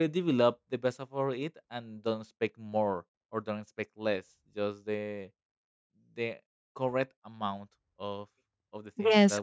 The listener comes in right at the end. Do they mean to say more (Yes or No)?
Yes